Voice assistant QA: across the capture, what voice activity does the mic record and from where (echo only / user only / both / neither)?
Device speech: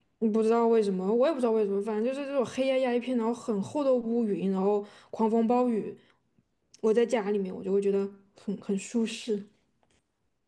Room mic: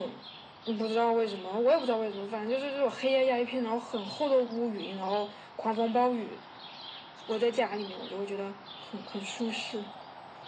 echo only